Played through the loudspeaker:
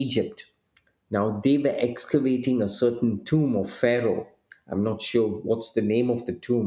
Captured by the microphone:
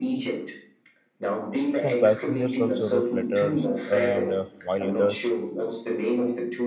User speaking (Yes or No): Yes